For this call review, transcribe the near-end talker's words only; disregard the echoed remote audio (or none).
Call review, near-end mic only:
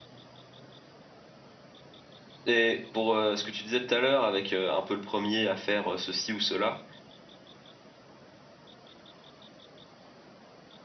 Et pour euh, ce que tu disais tout à l'heure, avec euh, un peu le premier à faire euh, ceci ou cela,